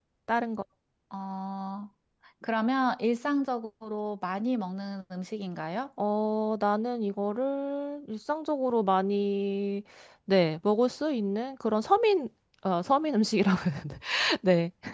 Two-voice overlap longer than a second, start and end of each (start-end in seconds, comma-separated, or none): none